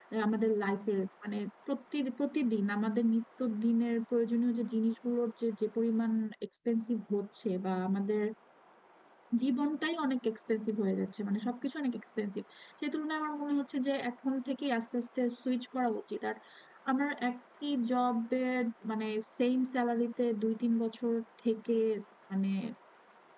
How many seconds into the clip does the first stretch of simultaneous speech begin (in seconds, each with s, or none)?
none